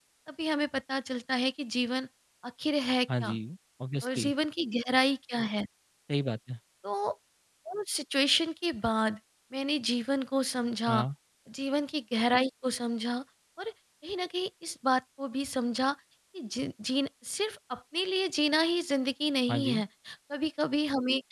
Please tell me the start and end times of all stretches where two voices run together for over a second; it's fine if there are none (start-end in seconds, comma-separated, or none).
none